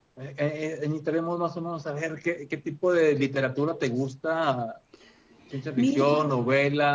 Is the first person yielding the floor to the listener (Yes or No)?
No